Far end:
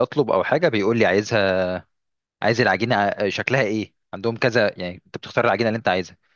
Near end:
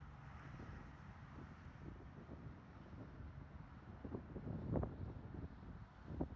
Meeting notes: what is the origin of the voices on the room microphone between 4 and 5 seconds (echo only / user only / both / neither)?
neither